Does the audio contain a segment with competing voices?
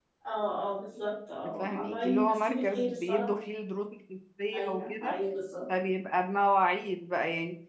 Yes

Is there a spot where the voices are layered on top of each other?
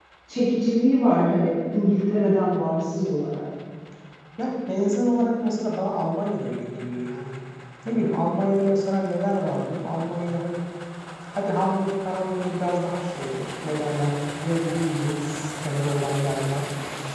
No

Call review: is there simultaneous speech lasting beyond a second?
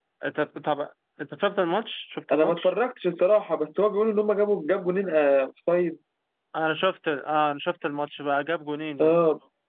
No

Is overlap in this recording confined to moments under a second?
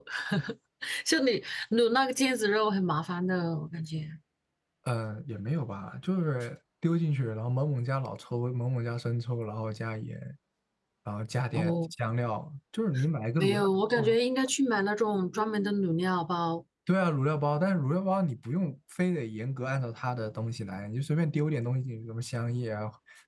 Yes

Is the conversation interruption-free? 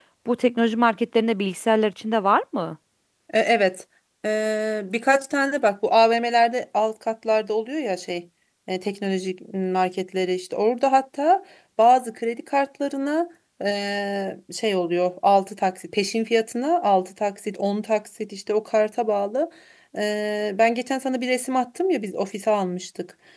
Yes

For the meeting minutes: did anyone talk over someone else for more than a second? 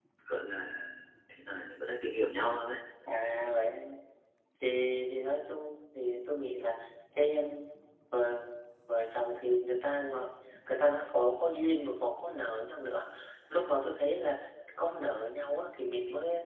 No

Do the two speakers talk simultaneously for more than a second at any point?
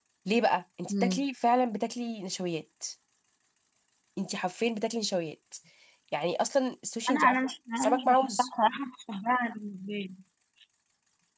Yes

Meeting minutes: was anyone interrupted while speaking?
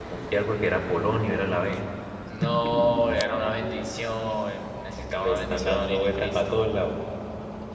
Yes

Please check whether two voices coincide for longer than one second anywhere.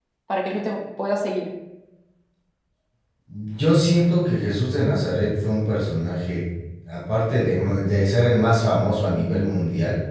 No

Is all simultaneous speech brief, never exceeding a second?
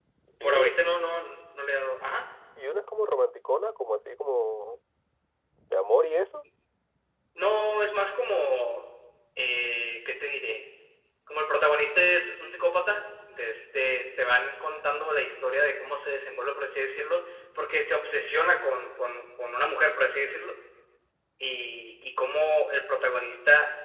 Yes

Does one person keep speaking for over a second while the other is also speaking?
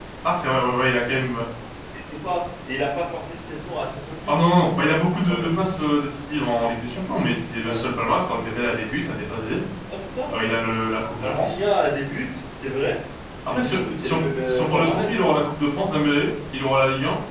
Yes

